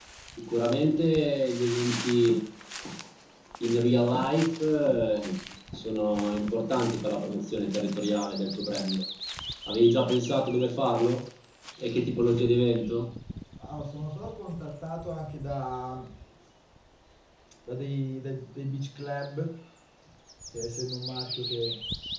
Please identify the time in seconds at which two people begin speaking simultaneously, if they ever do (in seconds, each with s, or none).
none